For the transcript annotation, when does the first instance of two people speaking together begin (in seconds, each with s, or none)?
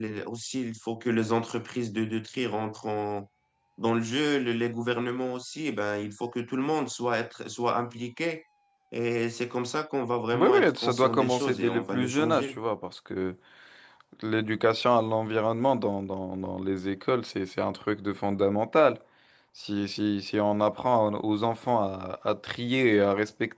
10.3 s